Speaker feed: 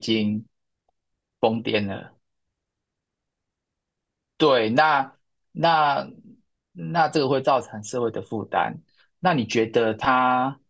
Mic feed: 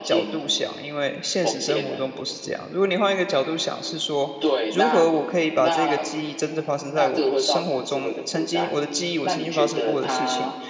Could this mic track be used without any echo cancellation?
No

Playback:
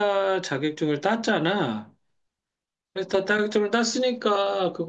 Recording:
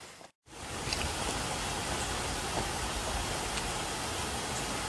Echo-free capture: Yes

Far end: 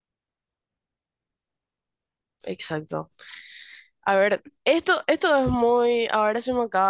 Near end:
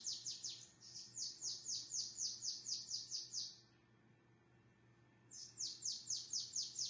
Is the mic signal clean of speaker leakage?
Yes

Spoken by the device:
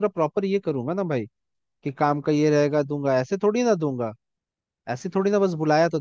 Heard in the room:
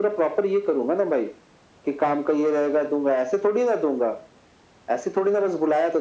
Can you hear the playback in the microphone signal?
Yes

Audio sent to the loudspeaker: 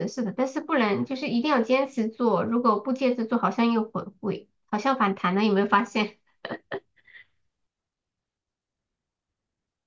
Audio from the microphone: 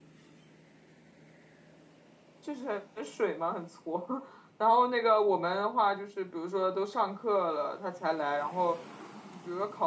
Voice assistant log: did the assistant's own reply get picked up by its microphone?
No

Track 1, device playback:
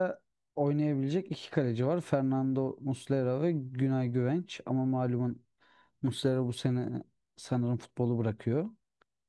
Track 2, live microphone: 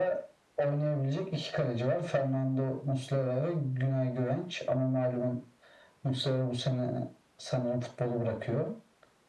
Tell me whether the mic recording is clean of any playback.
No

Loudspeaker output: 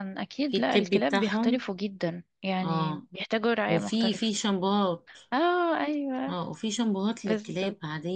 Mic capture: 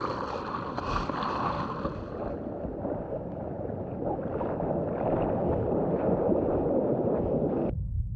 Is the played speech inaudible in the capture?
Yes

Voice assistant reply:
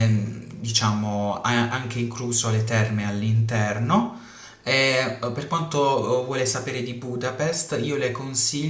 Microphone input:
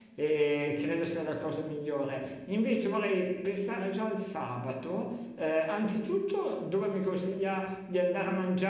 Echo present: No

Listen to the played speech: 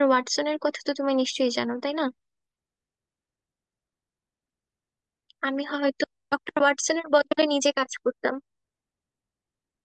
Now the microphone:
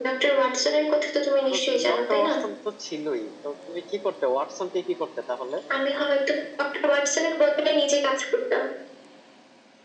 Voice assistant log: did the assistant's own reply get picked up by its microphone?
Yes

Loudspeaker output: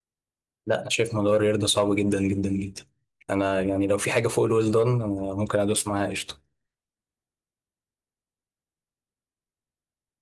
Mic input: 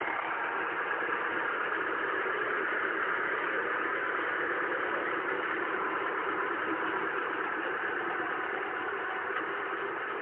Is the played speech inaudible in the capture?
Yes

